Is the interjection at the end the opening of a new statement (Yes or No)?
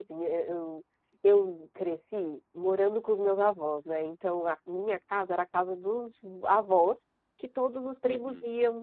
No